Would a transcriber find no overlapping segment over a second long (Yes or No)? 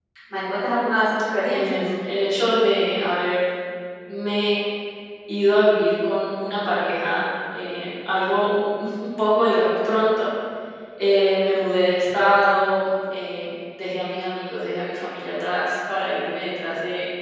Yes